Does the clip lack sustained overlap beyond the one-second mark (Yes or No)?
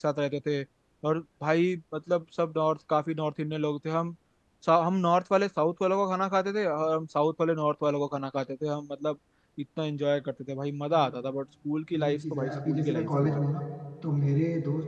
No